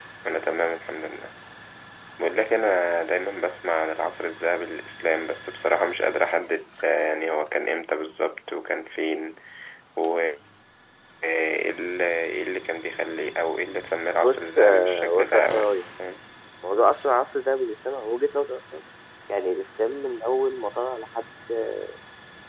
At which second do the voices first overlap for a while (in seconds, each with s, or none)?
14.2 s